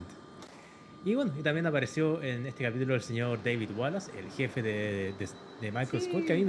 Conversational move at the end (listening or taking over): listening